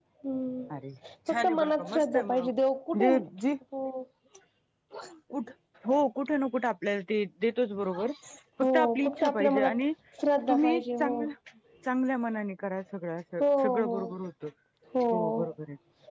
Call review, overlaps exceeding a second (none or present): present